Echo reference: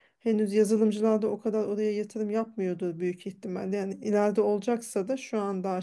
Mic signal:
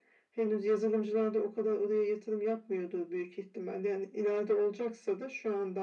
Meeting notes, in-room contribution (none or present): none